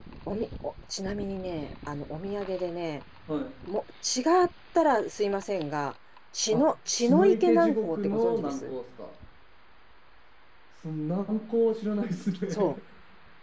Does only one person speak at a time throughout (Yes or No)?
No